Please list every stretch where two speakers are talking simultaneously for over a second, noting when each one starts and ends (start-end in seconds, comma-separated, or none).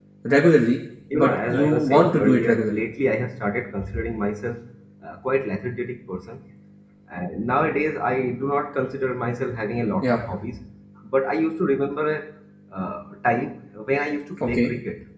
1.1-2.8